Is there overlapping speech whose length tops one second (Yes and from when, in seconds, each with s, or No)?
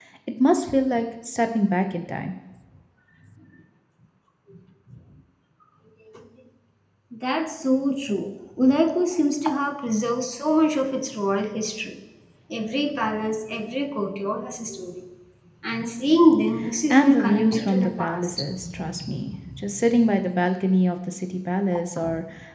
Yes, from 16.9 s